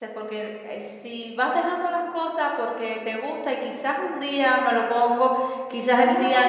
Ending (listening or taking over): listening